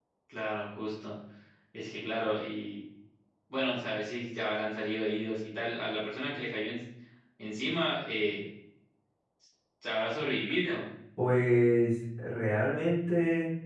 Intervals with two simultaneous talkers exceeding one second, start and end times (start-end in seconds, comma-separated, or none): none